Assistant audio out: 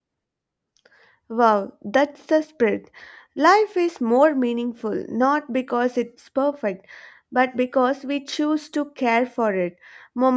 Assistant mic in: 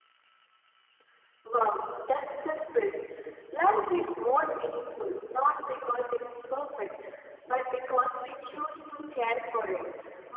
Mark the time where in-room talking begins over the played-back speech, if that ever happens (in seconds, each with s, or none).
none